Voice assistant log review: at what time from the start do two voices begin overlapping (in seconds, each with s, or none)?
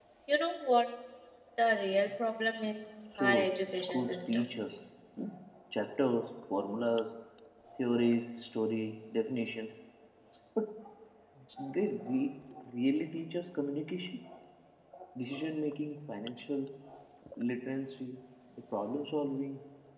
3.1 s